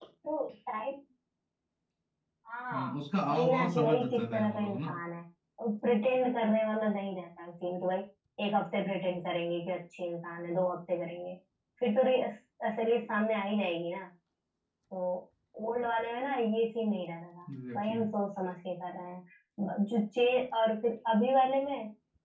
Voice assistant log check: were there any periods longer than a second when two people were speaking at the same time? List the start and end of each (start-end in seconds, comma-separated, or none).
3.3-4.9